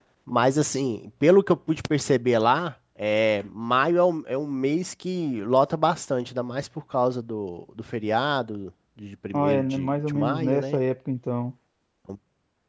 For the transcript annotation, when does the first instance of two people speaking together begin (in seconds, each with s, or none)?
9.3 s